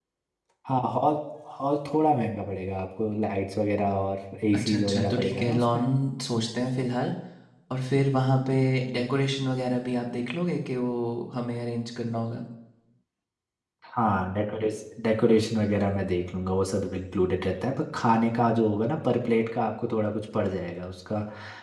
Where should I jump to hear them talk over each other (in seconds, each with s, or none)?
4.5 s